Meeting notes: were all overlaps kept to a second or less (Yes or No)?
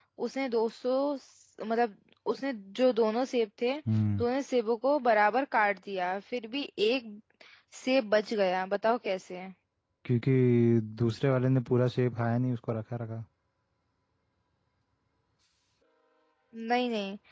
Yes